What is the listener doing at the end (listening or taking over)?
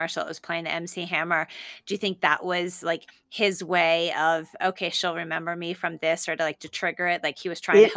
taking over